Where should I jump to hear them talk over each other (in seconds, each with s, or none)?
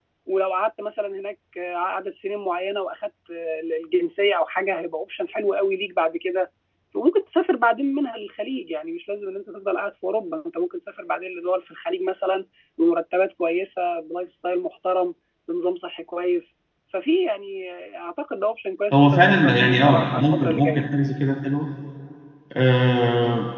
18.9 s